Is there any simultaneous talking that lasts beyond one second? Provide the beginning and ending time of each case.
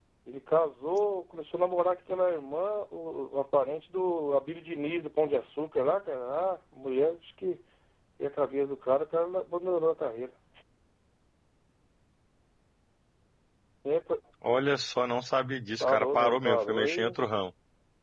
15.8-17.1

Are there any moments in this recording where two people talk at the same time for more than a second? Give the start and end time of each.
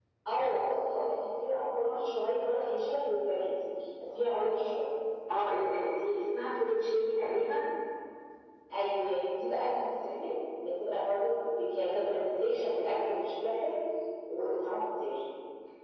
none

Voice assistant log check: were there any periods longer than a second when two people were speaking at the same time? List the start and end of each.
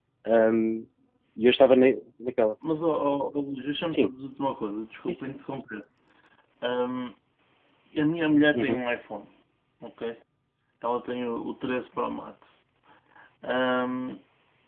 none

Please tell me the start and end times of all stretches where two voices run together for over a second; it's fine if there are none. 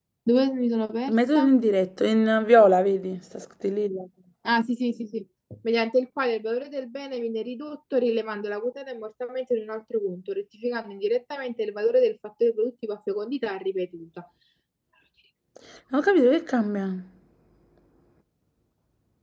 none

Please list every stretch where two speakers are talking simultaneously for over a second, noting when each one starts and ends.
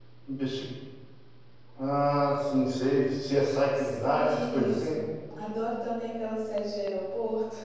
3.7-4.9

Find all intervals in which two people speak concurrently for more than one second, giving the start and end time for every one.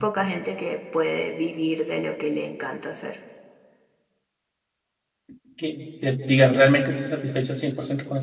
none

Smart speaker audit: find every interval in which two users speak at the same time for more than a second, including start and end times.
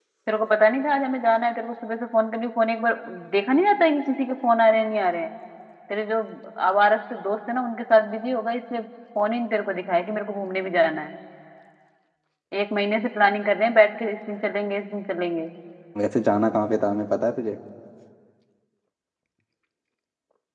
none

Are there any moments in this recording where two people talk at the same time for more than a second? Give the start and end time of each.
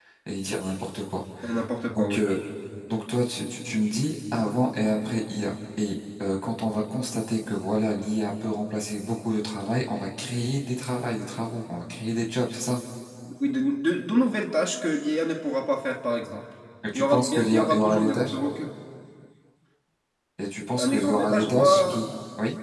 16.9-18.4, 20.8-22.0

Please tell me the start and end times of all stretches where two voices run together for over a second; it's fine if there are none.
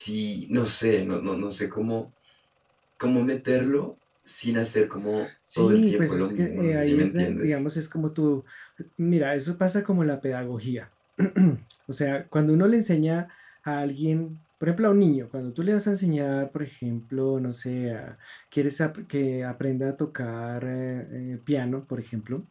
5.6-7.5

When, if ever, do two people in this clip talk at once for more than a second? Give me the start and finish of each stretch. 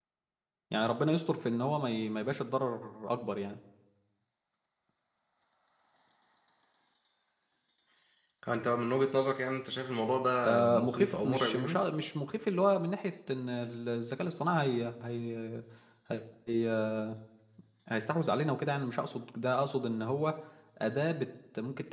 10.4-11.8

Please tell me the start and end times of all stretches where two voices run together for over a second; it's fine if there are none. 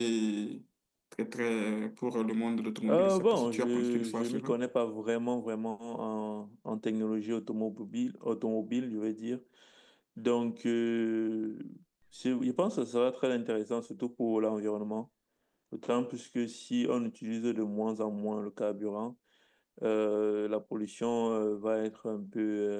2.9-4.5

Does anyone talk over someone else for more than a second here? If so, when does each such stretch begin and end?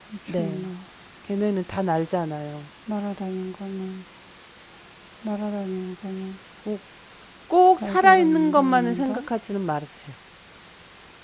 7.8-9.2

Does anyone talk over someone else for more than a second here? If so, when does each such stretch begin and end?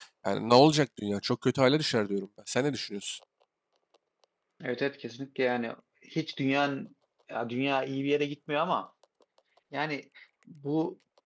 none

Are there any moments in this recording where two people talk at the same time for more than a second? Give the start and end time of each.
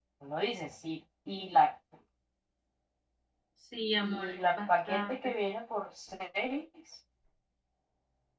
4.0-5.3

